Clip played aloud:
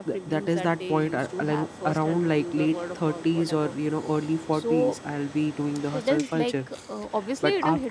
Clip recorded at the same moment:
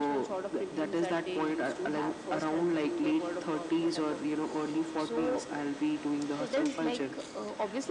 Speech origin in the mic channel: echo only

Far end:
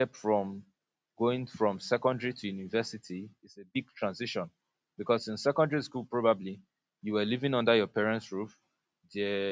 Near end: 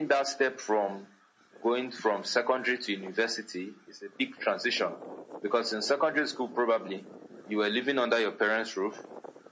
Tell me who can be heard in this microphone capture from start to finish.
echo only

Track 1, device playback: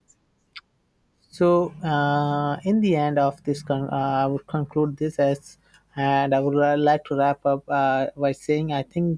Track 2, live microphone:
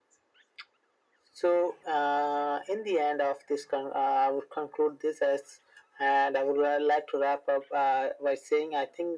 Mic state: echo only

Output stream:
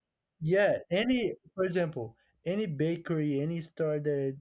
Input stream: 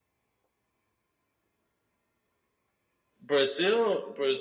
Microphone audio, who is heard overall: user only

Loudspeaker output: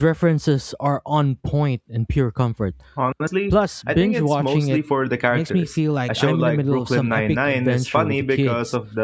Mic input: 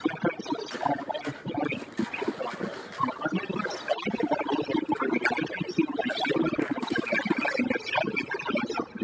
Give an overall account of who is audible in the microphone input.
echo only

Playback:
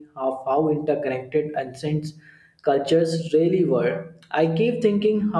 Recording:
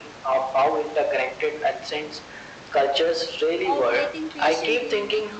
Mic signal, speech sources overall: both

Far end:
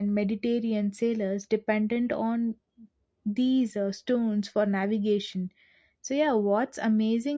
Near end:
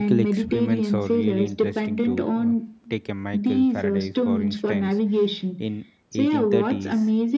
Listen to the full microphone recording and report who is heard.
both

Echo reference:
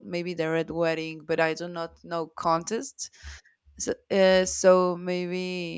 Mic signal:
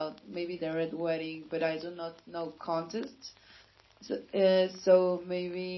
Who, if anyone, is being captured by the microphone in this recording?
echo only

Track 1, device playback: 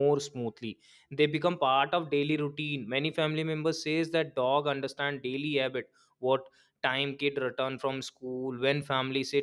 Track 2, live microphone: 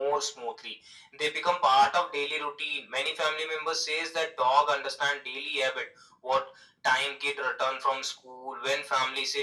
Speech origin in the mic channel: echo only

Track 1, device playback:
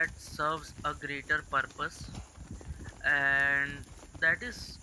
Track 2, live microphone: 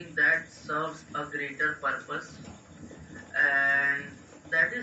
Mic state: echo only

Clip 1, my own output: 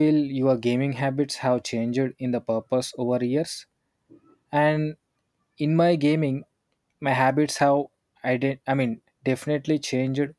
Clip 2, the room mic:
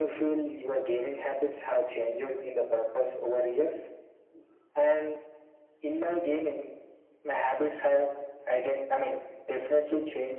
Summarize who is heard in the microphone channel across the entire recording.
echo only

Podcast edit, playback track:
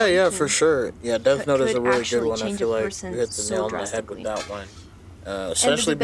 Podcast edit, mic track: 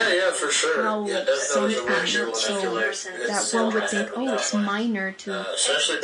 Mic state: both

